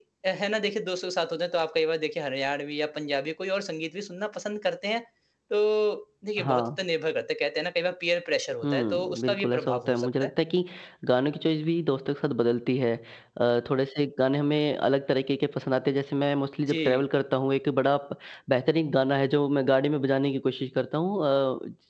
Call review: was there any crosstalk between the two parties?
Yes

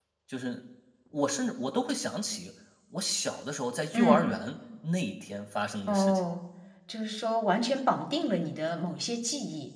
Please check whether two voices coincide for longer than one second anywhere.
No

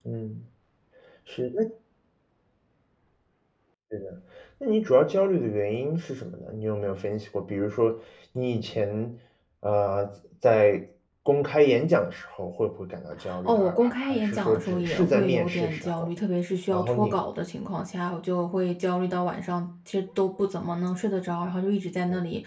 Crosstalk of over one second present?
Yes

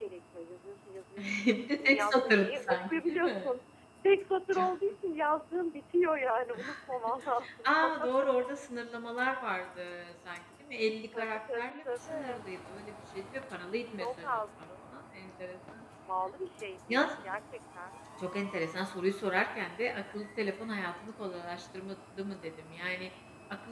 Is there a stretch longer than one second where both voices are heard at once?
Yes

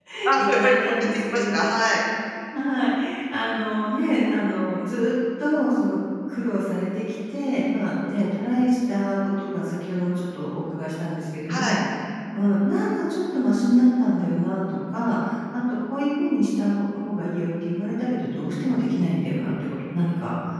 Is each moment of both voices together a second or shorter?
No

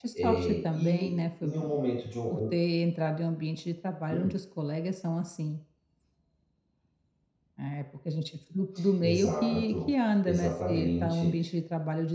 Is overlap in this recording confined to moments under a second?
No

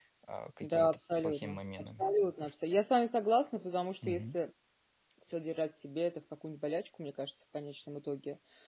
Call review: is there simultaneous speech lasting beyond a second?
Yes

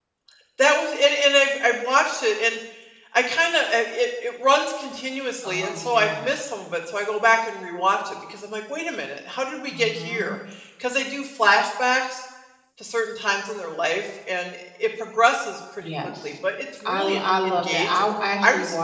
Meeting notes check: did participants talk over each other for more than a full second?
Yes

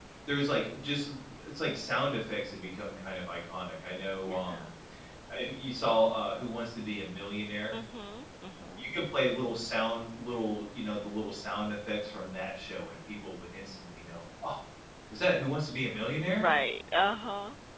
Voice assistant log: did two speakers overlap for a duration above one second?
No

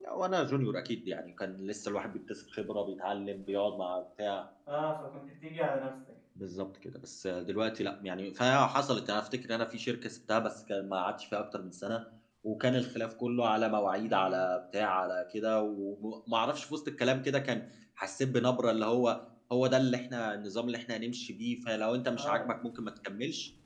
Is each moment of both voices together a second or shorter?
Yes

